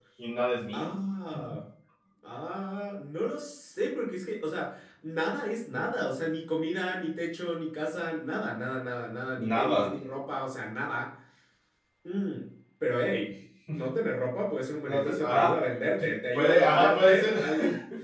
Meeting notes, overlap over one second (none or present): present